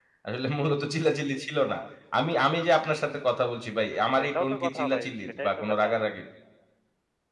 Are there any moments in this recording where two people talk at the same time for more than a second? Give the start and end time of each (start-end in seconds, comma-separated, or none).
4.2-6.1